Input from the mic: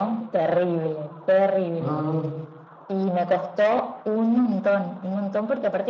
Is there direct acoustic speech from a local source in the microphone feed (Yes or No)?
Yes